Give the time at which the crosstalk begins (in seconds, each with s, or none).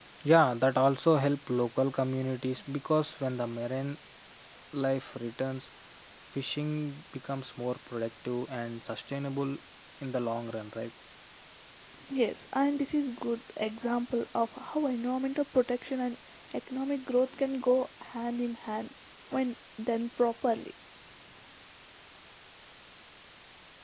none